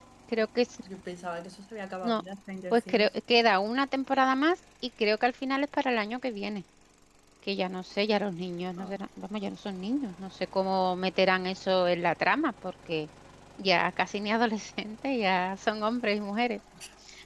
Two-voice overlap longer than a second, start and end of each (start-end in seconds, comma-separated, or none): none